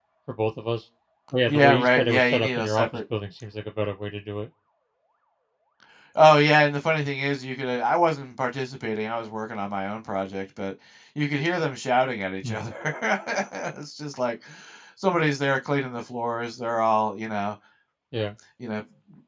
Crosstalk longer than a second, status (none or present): present